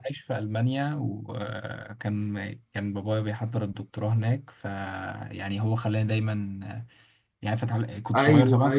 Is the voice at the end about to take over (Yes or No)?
Yes